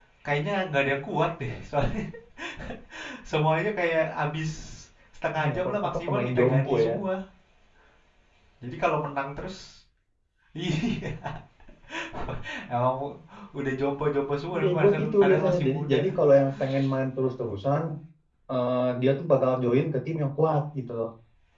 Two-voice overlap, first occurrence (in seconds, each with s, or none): 5.4 s